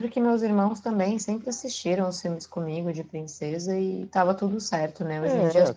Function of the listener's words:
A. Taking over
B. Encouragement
B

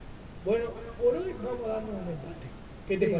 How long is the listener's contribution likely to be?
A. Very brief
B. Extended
B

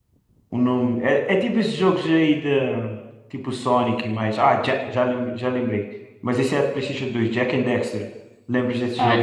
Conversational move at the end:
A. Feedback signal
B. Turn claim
B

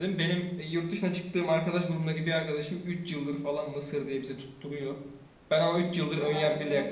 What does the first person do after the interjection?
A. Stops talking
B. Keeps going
B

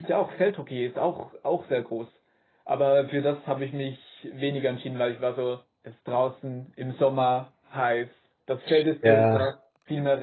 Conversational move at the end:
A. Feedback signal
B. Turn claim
A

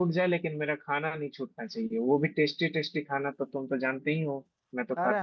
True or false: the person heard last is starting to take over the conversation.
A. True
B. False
A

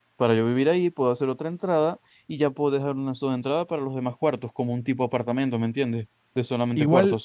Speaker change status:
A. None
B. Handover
B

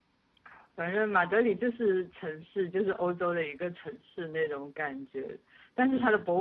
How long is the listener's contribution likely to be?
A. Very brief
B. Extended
A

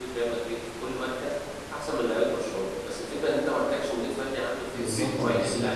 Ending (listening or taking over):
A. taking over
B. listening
A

